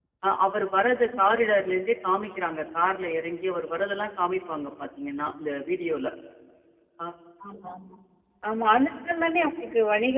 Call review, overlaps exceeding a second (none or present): none